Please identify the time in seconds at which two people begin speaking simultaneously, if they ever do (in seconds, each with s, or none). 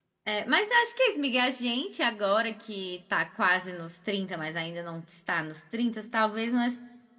none